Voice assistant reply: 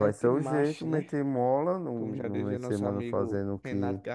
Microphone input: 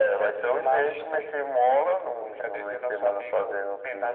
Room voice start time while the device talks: none

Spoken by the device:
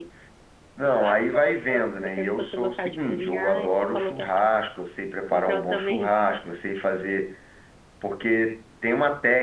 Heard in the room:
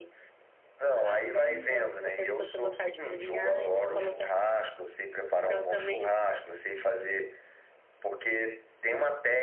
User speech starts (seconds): 1.4 s

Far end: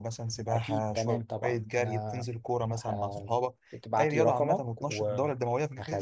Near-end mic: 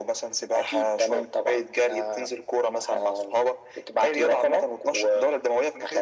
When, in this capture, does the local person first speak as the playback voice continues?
none

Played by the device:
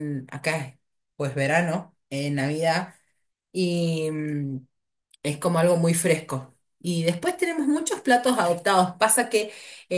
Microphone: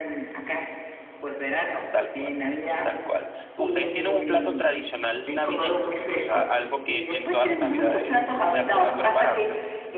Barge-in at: 1.9 s

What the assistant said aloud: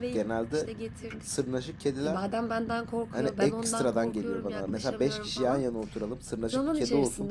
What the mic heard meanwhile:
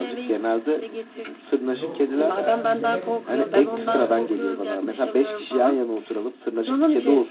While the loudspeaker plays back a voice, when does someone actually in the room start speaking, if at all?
1.6 s

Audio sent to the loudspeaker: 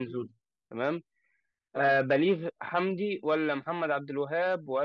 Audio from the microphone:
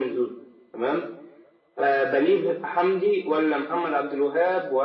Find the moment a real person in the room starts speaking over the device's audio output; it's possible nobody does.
none

